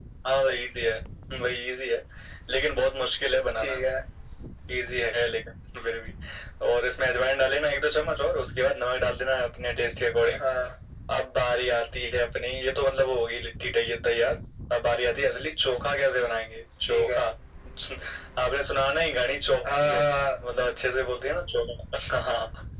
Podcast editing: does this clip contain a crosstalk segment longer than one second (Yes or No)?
No